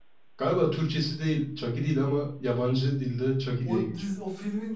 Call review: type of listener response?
taking over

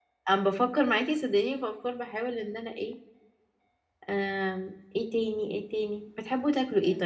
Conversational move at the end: listening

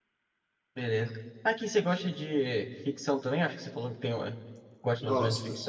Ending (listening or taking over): taking over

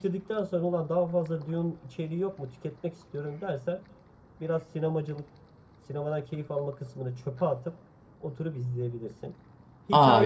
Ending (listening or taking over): listening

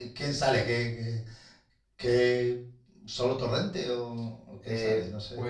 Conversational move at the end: taking over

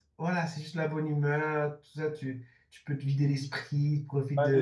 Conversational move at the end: taking over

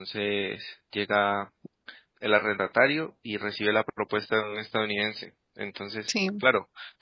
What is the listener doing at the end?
listening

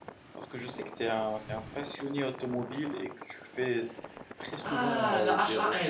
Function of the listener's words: taking over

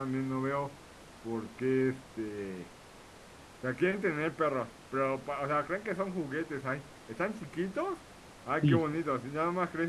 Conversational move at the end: listening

